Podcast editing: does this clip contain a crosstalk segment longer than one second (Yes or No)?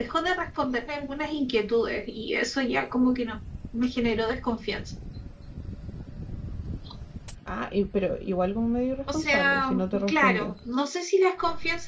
Yes